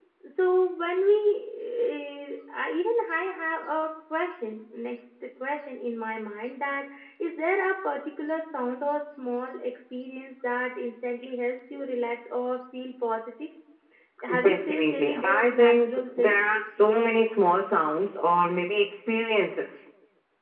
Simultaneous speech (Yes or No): Yes